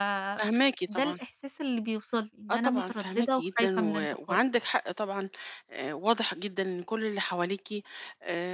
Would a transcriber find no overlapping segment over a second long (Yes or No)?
No